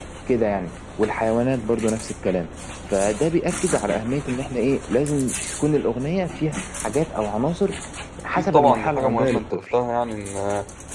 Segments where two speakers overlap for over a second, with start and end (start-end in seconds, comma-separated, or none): 8.3-9.8